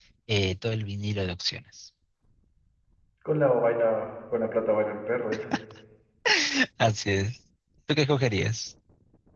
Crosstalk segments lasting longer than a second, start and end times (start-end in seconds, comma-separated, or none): none